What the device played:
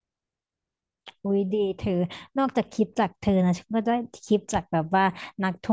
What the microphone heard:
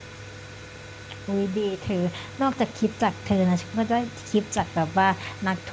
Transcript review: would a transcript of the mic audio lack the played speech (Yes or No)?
No